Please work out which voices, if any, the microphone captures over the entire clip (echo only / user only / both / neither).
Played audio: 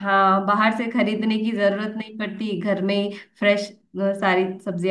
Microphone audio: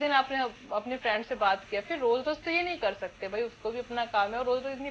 user only